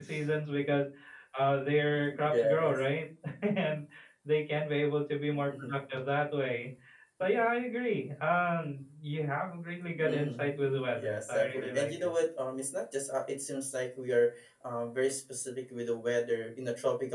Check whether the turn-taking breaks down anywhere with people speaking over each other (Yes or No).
Yes